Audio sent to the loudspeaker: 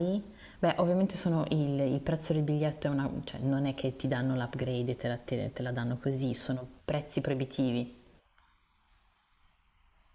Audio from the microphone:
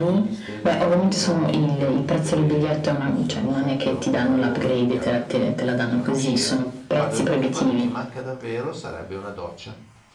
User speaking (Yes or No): Yes